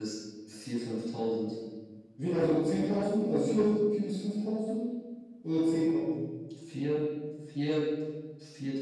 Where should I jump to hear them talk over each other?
none

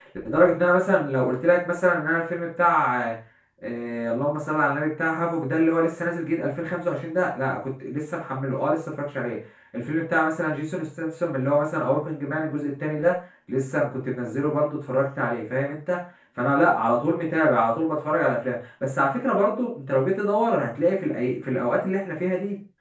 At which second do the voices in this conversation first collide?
none

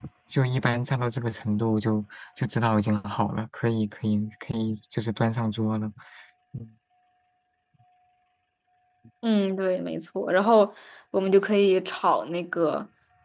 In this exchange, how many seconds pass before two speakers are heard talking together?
none

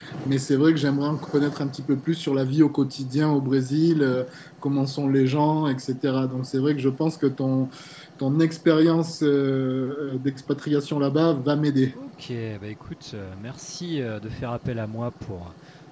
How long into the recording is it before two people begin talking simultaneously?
none

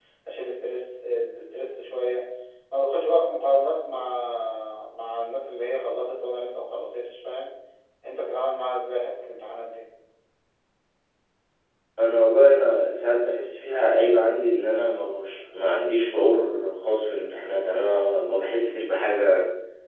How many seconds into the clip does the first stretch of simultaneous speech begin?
none

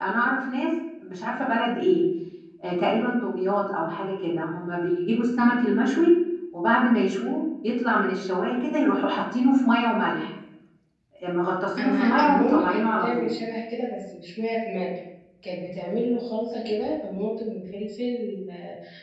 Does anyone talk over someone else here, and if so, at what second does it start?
11.8 s

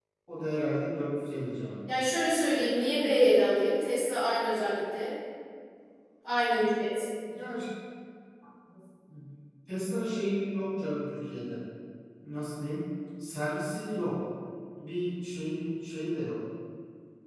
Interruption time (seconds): none

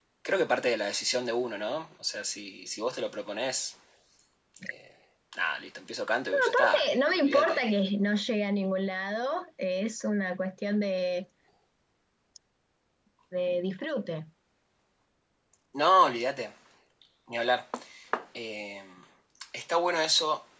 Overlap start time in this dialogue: 6.3 s

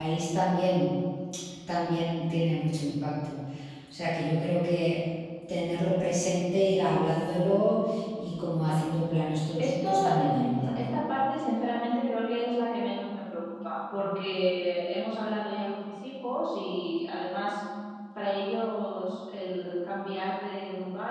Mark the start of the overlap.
9.6 s

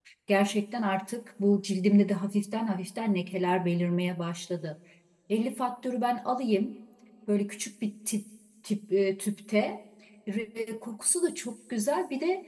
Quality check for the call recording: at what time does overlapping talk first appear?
none

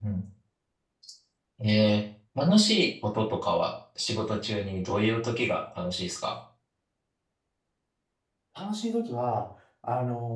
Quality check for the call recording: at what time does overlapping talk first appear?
none

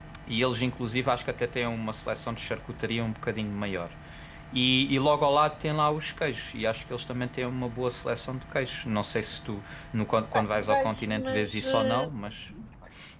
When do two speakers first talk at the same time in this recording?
10.3 s

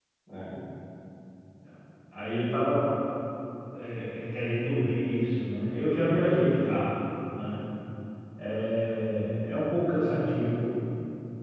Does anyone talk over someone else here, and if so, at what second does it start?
none

